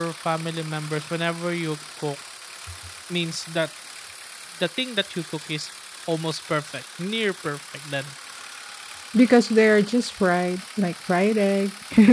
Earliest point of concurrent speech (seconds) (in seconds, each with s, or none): none